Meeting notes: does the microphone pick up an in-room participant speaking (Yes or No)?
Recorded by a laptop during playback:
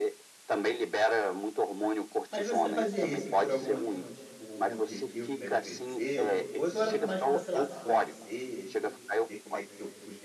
Yes